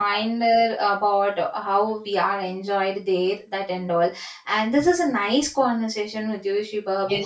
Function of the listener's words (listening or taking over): taking over